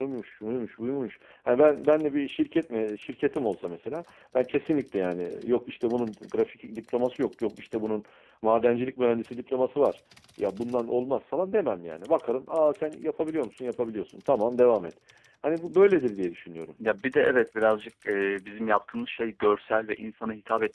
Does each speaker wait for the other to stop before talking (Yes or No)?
Yes